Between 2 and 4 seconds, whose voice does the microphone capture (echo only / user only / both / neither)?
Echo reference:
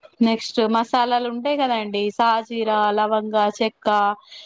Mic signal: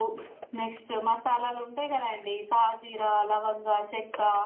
echo only